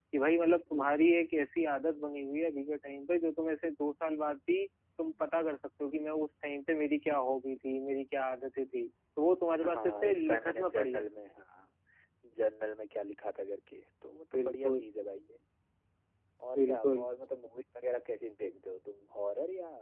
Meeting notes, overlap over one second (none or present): present